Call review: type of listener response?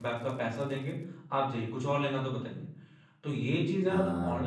listening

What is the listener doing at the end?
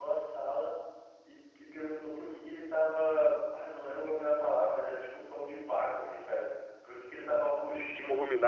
listening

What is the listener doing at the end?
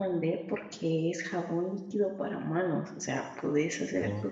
listening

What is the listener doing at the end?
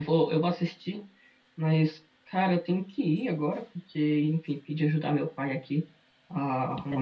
listening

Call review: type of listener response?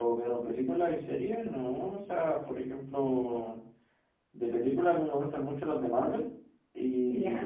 listening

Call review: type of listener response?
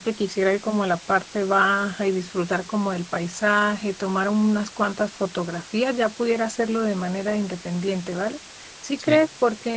listening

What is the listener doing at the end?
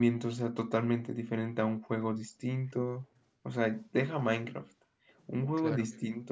listening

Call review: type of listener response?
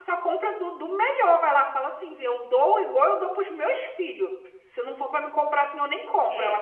taking over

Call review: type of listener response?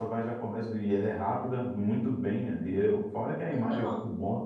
listening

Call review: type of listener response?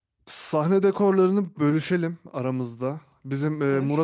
listening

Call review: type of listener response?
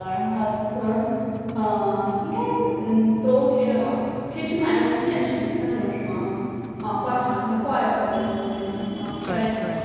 taking over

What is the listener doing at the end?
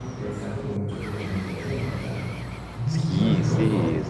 taking over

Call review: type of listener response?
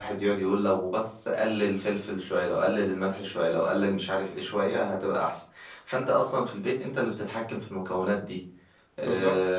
listening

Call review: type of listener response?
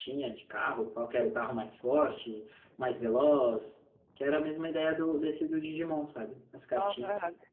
taking over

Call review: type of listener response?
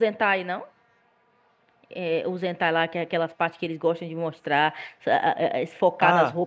taking over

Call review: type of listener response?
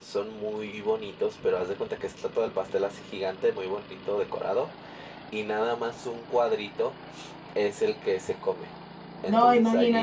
listening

